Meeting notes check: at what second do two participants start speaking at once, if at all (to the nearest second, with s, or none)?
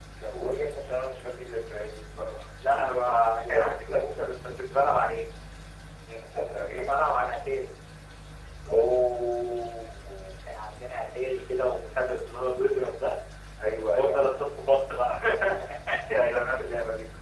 3 s